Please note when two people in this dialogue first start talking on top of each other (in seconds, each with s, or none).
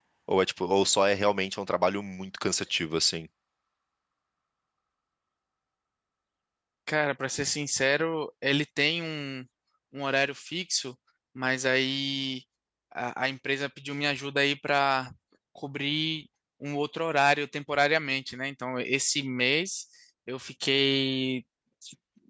none